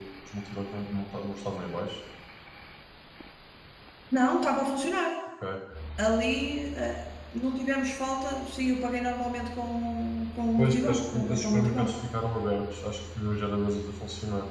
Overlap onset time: 10.6 s

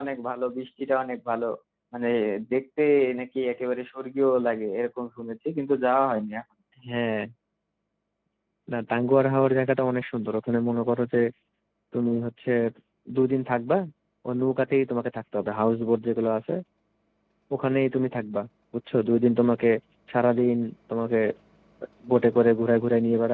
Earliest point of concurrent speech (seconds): none

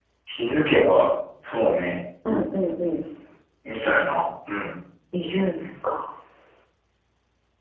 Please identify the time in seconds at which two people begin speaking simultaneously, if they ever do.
none

